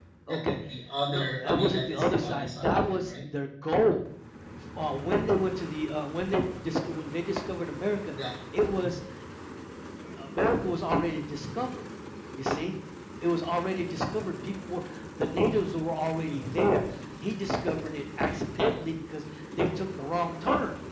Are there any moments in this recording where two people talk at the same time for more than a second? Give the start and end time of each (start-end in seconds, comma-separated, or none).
1.1-3.1